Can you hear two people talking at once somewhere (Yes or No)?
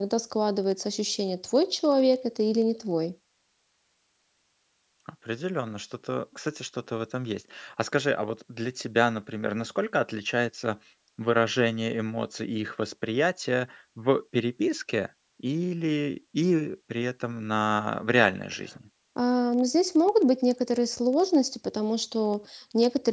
No